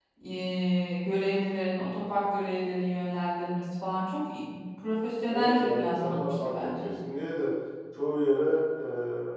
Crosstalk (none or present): present